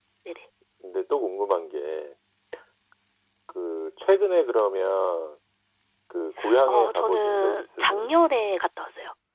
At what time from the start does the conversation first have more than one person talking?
6.7 s

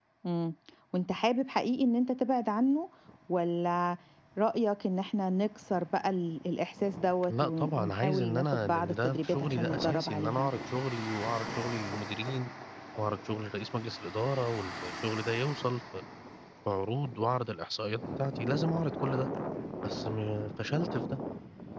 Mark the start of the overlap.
7.3 s

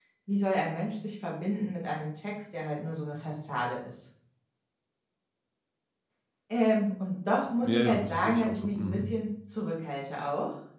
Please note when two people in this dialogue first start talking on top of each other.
7.6 s

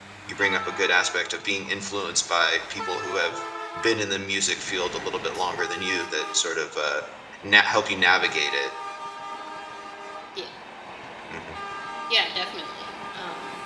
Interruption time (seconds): none

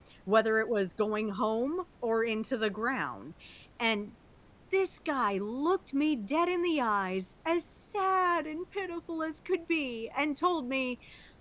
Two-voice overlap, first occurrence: none

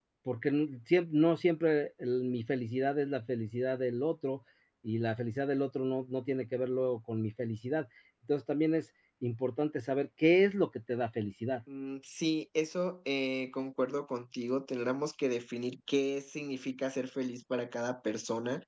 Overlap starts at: none

